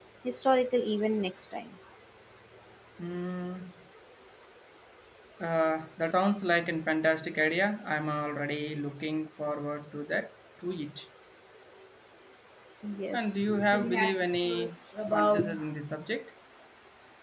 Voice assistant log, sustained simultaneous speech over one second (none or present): present